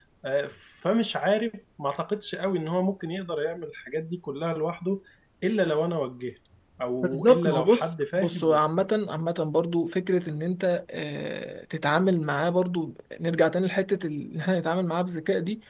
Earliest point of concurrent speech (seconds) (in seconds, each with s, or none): 7.0 s